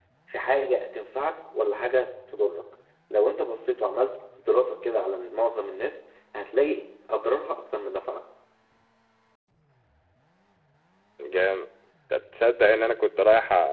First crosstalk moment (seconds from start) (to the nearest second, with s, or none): none